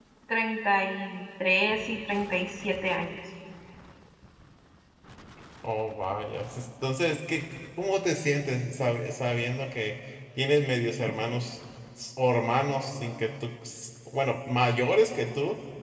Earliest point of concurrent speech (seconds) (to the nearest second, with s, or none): none